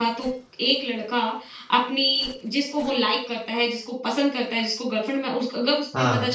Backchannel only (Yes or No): Yes